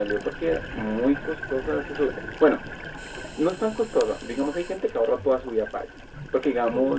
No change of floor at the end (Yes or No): Yes